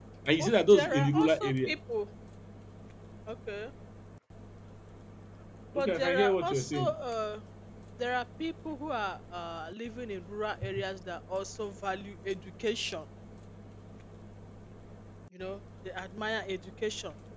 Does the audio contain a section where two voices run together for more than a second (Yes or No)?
Yes